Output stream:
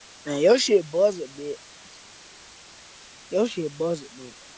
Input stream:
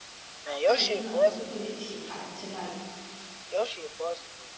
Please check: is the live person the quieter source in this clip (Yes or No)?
Yes